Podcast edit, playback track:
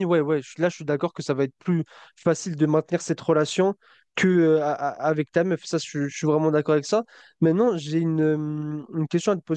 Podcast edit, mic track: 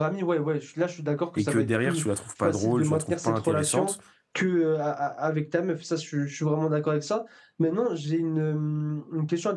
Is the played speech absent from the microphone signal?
No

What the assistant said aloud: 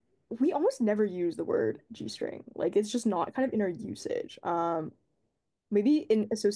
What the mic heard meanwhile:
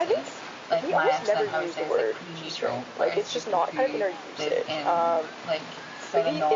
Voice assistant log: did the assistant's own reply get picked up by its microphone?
Yes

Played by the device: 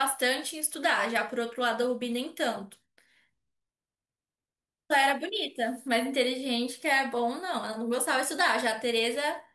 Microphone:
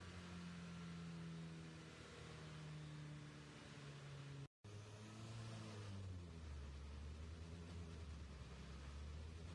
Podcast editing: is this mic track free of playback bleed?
Yes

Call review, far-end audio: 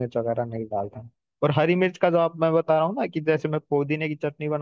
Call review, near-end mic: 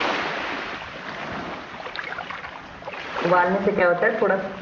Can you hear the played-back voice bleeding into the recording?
No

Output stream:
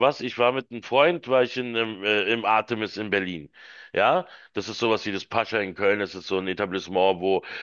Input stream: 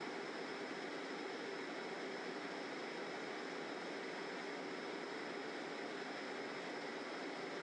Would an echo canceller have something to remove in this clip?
No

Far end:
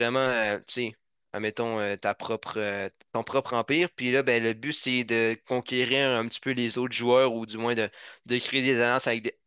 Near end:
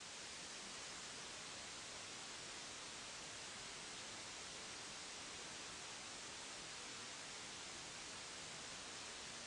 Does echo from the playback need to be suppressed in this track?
No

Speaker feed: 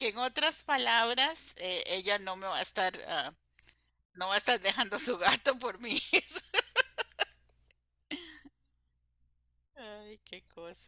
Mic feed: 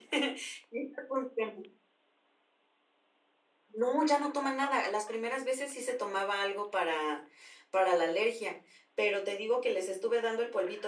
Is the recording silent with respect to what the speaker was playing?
Yes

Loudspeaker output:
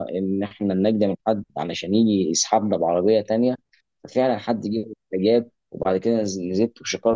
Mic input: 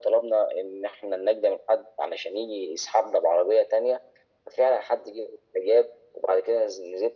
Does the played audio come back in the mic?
Yes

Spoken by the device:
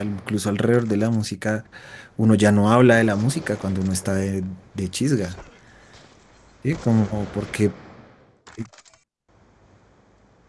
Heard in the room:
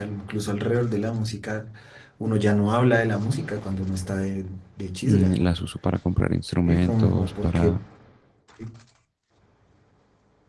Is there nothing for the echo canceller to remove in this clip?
No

